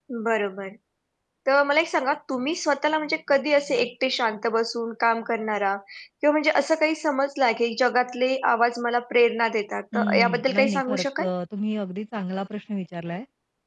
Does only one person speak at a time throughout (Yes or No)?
No